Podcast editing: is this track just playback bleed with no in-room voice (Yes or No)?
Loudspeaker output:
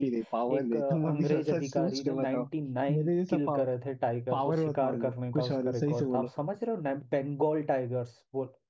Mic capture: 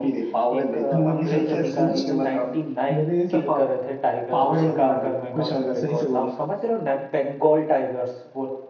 Yes